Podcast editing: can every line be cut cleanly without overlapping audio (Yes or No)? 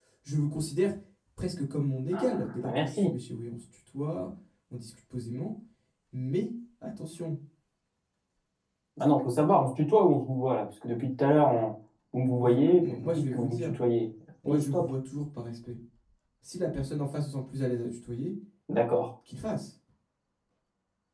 No